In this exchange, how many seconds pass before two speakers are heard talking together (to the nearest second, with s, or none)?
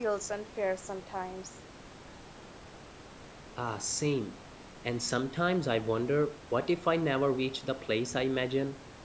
none